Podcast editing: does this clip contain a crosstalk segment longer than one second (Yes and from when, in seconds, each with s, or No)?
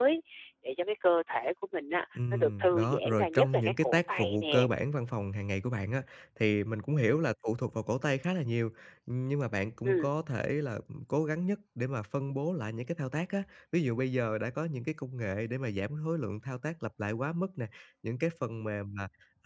Yes, from 2.2 s